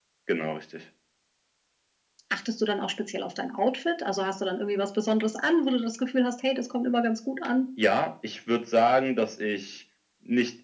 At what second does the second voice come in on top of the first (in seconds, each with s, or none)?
none